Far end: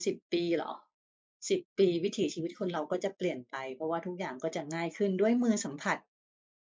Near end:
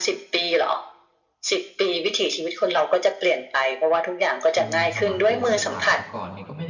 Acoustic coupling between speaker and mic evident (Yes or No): Yes